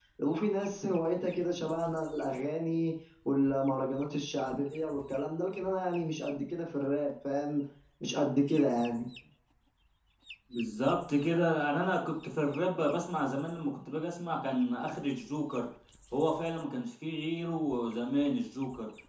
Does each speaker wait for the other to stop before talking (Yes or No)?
Yes